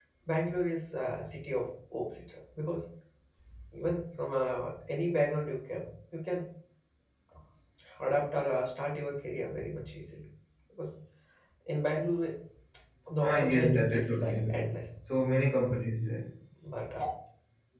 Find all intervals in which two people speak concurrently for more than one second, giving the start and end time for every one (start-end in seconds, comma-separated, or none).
13.2-14.9